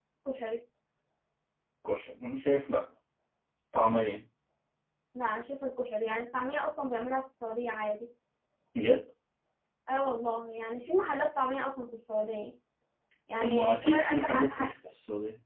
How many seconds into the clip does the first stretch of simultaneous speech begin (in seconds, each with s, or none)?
13.4 s